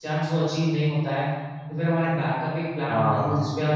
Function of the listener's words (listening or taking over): listening